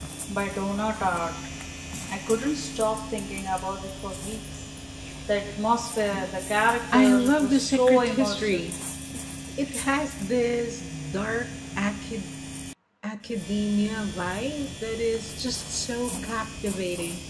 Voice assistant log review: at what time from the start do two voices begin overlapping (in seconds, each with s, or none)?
6.9 s